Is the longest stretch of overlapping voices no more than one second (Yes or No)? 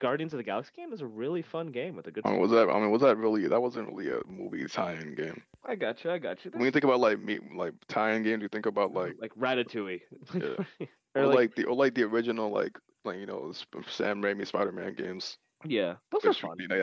Yes